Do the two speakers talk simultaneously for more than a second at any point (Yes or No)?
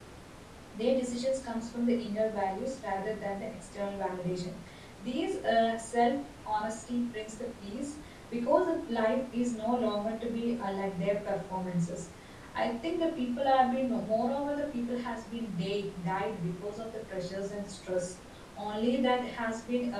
No